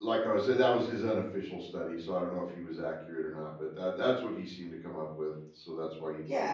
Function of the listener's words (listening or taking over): taking over